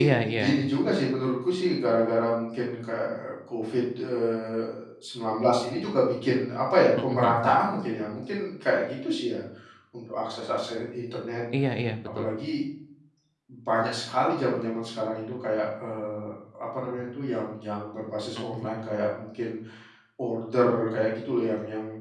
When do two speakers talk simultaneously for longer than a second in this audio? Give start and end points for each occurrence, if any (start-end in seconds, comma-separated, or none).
none